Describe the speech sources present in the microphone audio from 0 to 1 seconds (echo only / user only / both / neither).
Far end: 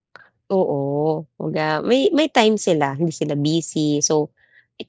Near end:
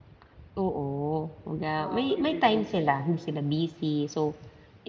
echo only